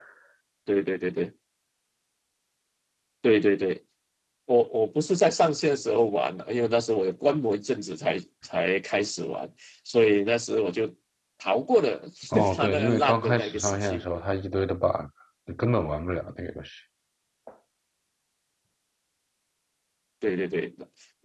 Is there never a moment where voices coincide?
No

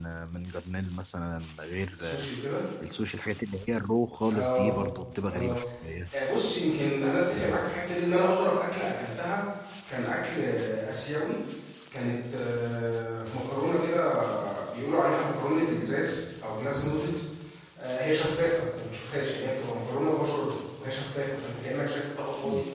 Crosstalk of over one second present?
No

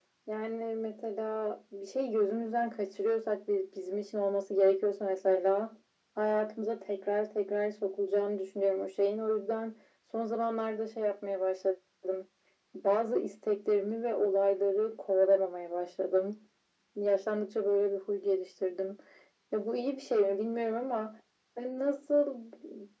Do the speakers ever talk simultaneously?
No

